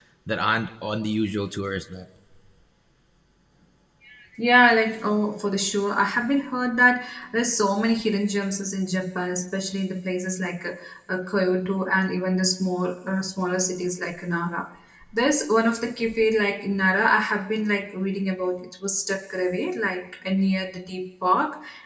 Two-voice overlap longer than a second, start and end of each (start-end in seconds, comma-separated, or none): none